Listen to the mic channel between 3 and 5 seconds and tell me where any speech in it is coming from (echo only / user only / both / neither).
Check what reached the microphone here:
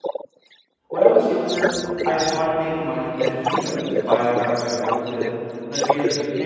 both